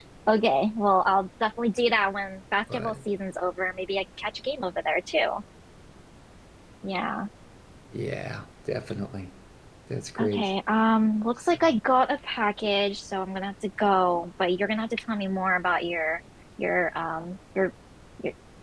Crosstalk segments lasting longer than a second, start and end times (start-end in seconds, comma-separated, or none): none